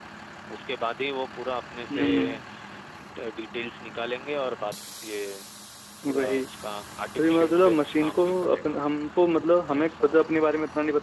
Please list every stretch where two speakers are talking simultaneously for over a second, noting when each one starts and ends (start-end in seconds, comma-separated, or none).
7.2-8.8